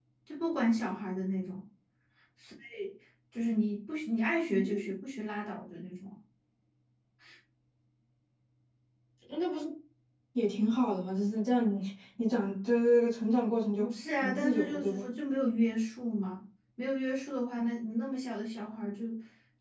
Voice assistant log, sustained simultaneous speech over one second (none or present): present